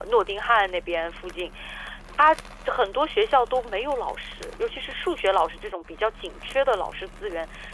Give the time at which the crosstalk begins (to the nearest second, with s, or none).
none